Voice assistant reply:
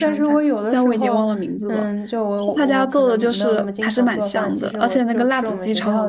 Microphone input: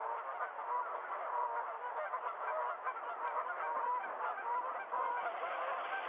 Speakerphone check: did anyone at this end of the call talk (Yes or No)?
No